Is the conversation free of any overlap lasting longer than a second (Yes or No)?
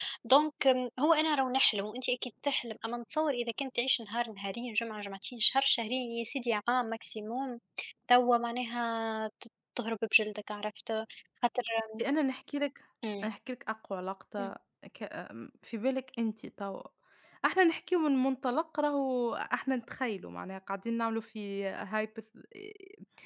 Yes